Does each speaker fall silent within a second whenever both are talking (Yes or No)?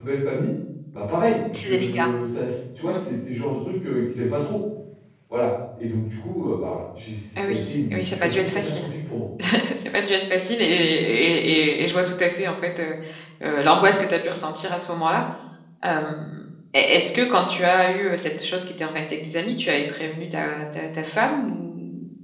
No